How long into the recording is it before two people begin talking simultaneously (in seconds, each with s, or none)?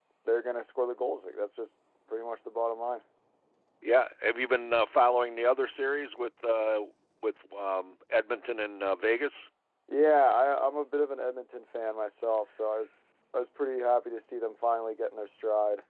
none